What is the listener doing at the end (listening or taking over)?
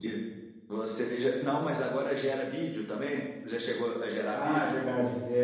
taking over